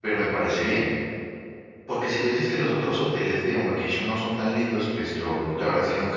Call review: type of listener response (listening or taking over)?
listening